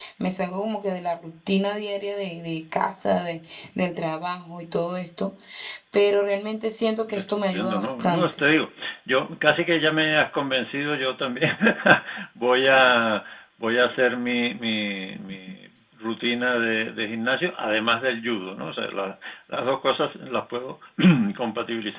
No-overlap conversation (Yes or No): No